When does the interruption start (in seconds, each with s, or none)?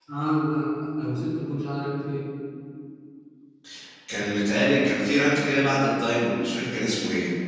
none